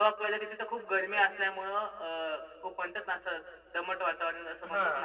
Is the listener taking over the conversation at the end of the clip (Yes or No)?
Yes